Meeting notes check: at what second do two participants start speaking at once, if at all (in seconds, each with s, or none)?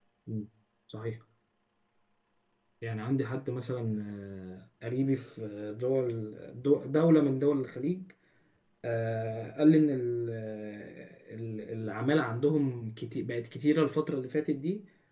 none